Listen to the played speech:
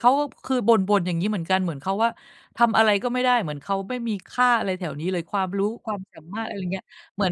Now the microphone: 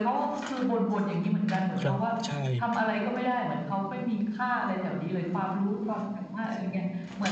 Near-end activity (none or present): present